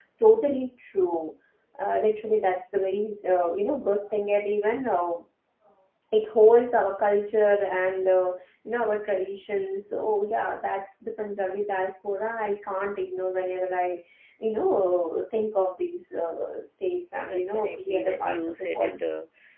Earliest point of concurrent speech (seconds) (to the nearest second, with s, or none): 17 s